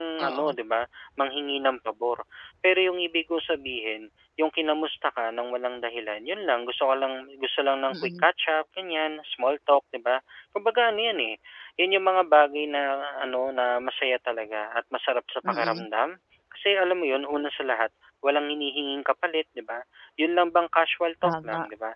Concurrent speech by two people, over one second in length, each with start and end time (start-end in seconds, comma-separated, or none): none